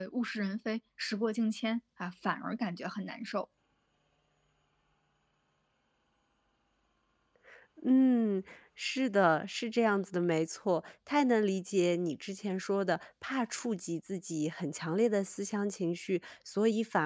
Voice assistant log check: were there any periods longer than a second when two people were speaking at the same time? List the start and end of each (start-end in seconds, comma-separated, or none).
none